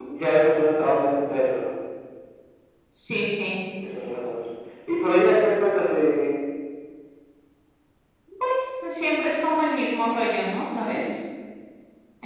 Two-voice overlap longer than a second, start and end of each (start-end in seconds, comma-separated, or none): none